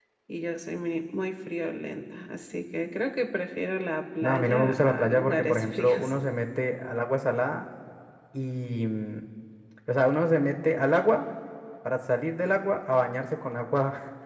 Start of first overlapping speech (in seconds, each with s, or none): 4.2 s